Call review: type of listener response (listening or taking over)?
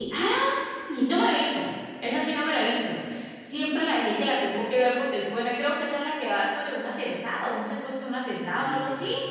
taking over